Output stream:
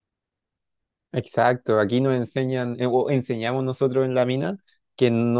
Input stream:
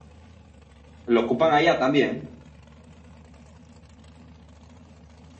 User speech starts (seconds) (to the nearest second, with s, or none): 1 s